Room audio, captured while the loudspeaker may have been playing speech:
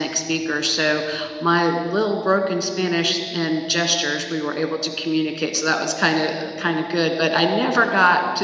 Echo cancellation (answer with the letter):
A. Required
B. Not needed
A